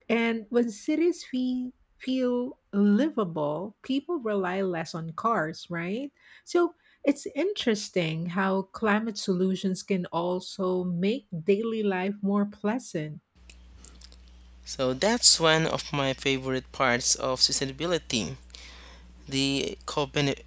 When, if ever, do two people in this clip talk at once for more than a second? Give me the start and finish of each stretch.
none

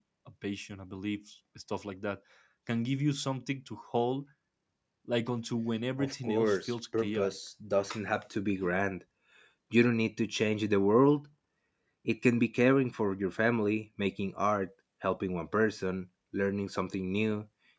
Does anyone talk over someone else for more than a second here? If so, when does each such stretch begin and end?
6.0-7.3

